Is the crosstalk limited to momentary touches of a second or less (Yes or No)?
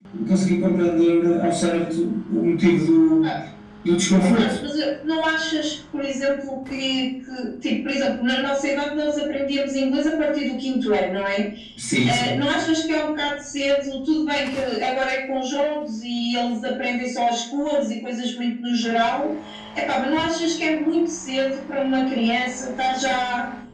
Yes